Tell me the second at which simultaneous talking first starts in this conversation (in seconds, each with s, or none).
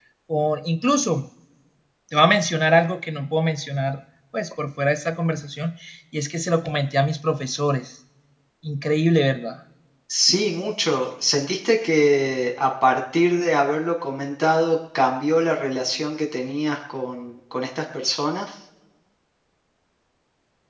none